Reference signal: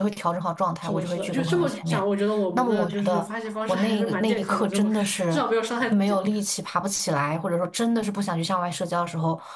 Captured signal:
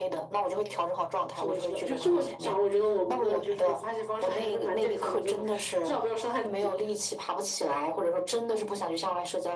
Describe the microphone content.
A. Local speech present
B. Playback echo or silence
B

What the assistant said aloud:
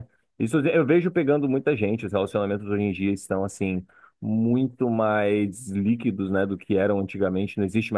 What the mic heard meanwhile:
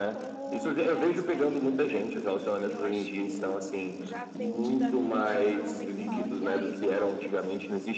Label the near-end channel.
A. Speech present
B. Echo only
A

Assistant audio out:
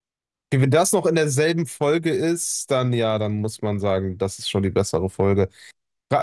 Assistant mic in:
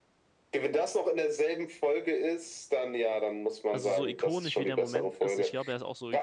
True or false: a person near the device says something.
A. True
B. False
A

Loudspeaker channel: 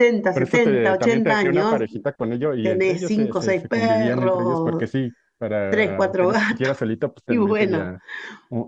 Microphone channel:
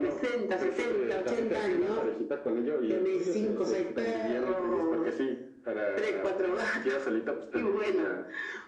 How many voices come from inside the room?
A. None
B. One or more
A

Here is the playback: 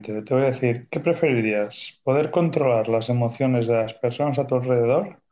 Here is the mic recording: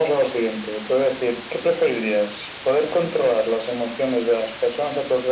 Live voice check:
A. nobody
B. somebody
A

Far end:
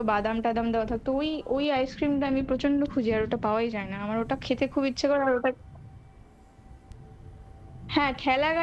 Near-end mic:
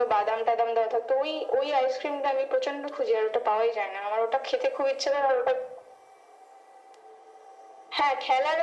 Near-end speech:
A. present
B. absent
B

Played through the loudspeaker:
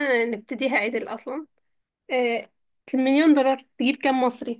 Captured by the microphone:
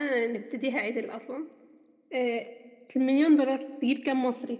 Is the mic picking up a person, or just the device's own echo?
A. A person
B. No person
B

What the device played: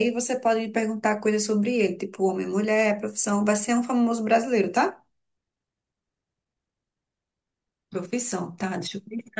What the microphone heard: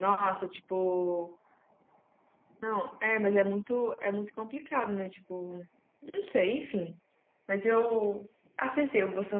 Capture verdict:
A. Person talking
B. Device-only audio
A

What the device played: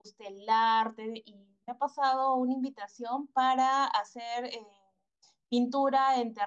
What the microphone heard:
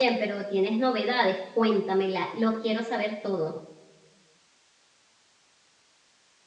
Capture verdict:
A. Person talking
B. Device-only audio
A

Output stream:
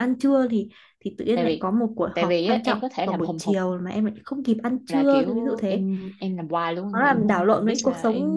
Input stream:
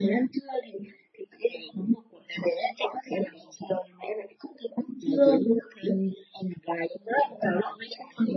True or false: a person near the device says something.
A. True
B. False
B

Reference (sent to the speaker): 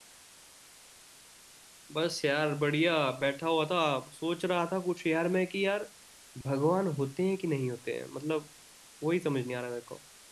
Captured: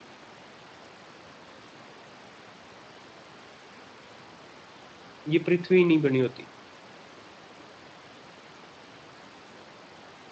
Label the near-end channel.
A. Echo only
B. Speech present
B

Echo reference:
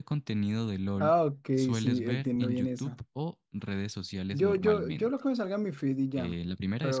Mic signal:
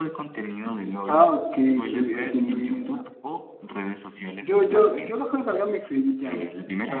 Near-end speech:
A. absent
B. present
A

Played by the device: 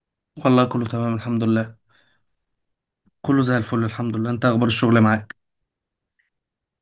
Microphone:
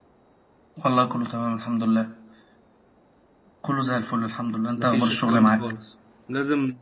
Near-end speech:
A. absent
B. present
B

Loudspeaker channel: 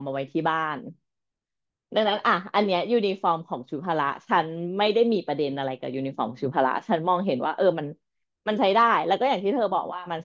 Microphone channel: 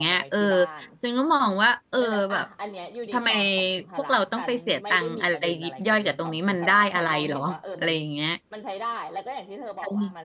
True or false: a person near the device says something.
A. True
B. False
A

